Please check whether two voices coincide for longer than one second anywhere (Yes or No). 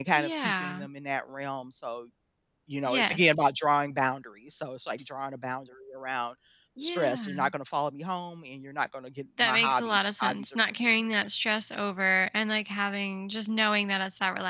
Yes